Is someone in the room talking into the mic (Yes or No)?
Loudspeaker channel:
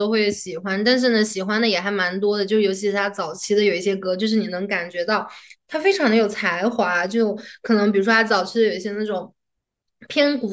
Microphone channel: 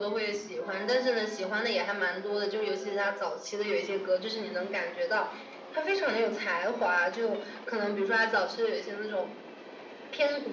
No